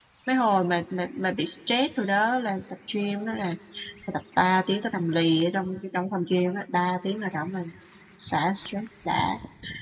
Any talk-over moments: No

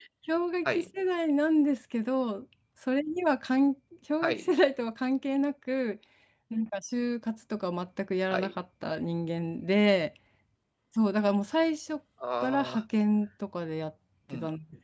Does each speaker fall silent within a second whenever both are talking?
Yes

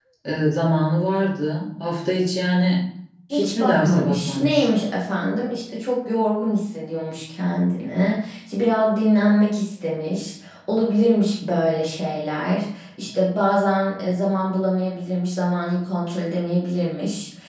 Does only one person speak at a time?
No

